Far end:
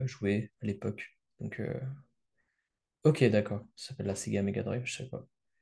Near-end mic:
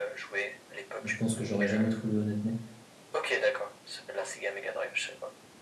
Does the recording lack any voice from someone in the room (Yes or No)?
No